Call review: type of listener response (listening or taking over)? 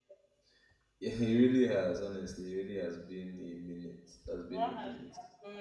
taking over